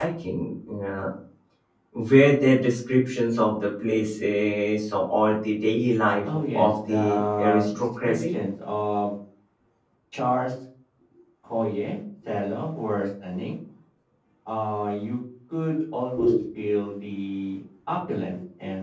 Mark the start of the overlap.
6.2 s

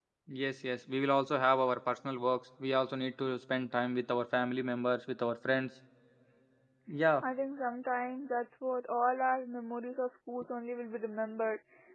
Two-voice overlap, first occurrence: none

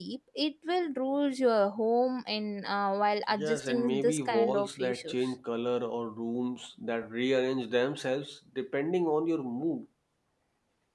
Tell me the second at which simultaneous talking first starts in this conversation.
3.3 s

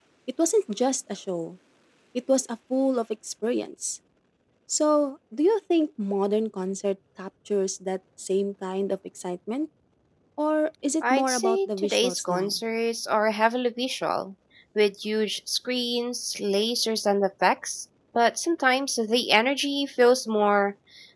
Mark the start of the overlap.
11.0 s

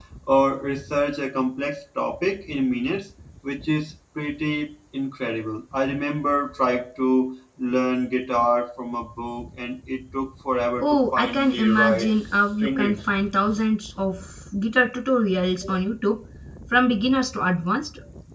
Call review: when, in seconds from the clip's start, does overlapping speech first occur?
10.8 s

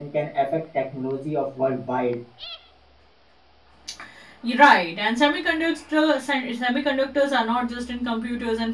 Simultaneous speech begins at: none

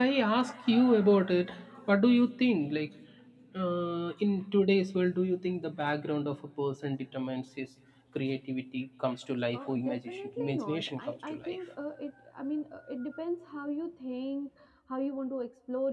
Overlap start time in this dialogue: 9.5 s

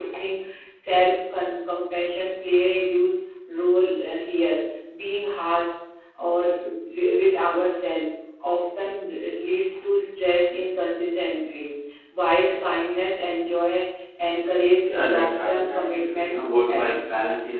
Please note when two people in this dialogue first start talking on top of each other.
14.8 s

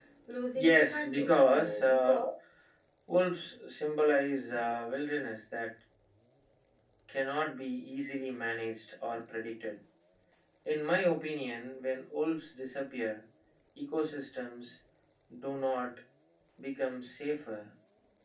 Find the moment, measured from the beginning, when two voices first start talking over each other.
0.6 s

